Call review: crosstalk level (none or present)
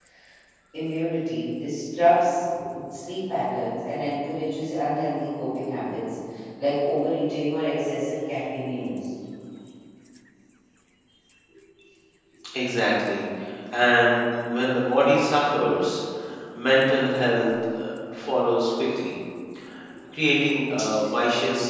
none